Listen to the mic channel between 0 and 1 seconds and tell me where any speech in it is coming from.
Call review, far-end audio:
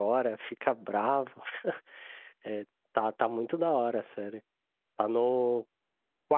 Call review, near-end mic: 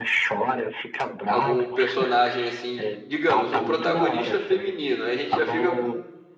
echo only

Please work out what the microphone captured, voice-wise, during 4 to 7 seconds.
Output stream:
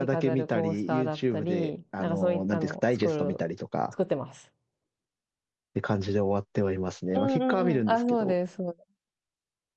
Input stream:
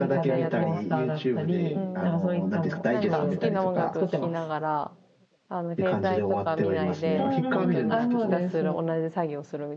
both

